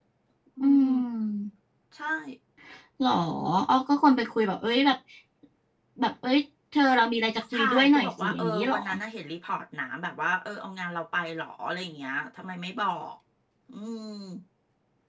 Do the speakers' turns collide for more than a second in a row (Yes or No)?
Yes